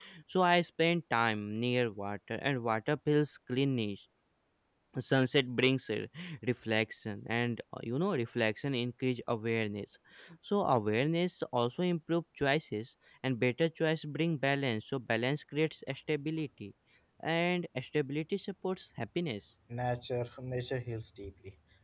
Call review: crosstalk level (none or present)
none